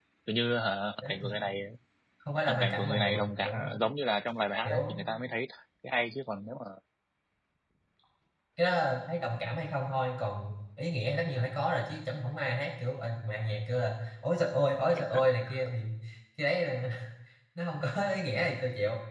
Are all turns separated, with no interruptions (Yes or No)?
No